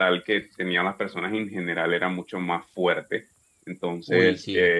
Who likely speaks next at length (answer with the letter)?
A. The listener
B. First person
B